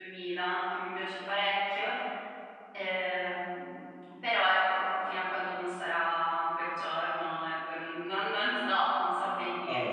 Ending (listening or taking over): taking over